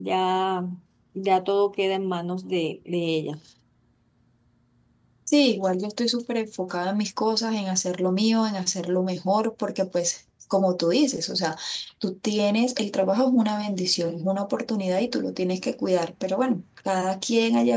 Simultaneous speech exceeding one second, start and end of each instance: none

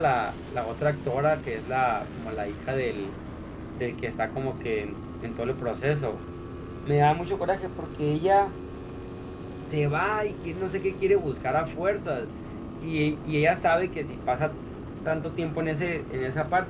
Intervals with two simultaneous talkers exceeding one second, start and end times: none

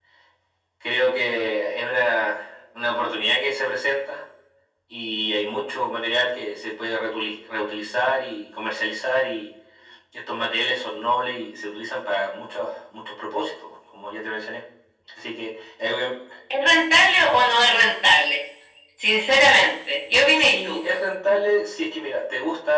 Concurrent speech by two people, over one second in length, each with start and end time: none

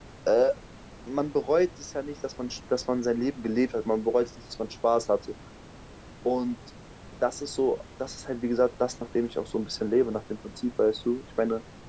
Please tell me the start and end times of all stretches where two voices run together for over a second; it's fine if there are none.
none

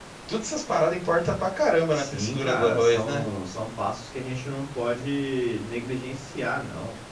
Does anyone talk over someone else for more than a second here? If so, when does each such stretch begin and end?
1.9-3.2

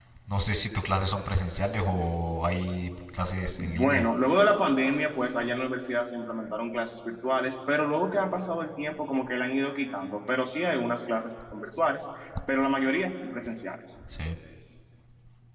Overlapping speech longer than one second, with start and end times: none

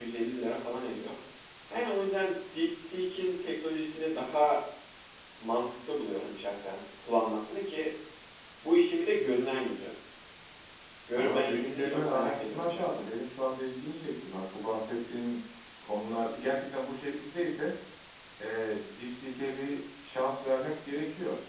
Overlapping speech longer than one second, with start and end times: 11.2-13.0

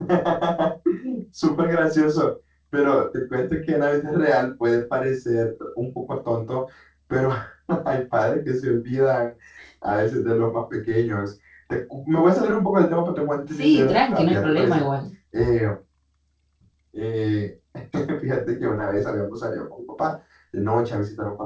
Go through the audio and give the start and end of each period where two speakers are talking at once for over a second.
13.6-14.8

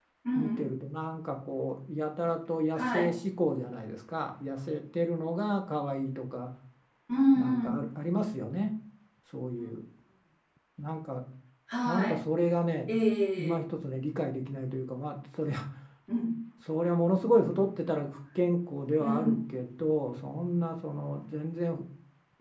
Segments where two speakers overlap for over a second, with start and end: none

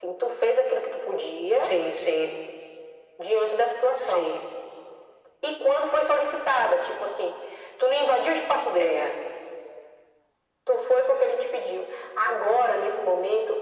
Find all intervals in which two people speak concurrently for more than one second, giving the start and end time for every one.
none

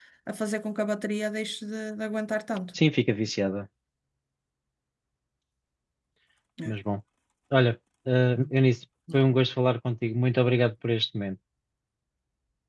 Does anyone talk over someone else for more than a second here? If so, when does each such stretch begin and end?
none

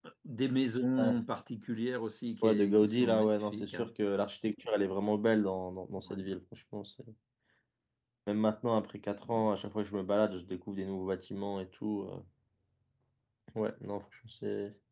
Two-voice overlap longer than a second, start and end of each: 2.4-3.9

